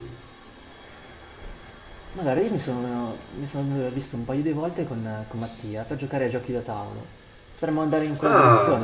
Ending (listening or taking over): listening